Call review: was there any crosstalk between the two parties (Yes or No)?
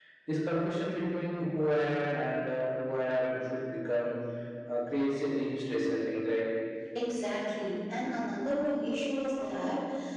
No